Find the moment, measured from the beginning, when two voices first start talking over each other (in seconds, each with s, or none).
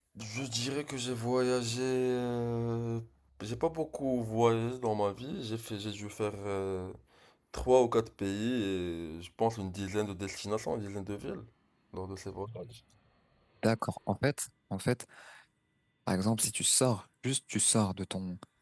none